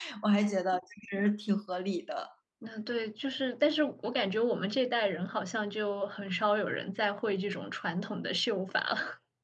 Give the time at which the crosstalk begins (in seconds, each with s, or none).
none